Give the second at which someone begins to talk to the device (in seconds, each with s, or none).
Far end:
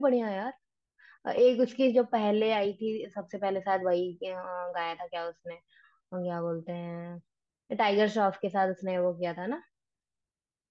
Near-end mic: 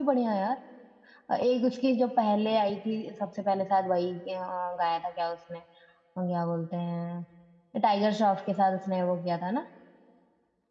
none